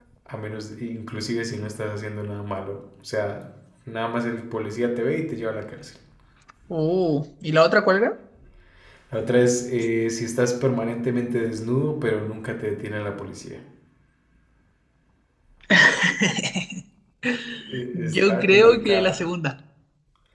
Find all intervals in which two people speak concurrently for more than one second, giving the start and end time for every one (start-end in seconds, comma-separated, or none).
17.9-19.1